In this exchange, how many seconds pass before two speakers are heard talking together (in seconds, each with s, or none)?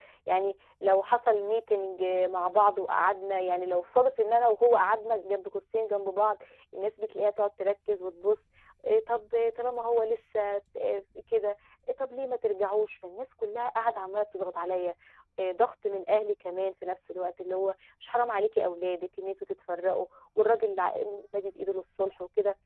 none